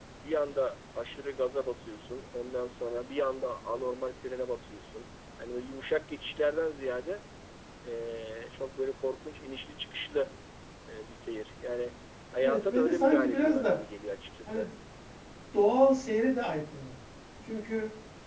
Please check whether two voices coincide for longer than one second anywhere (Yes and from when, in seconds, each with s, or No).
Yes, from 12.4 s